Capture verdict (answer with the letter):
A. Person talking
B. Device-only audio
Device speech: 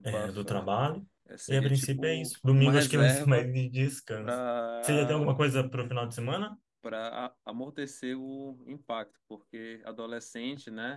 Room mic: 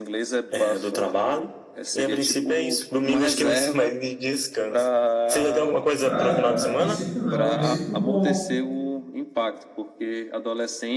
A